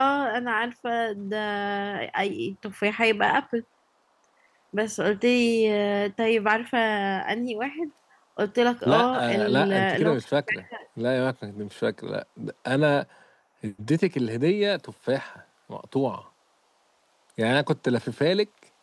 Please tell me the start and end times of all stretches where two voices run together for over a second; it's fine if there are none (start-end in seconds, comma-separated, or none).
8.8-10.2